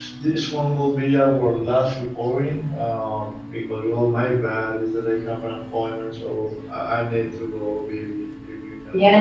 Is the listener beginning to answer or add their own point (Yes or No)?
Yes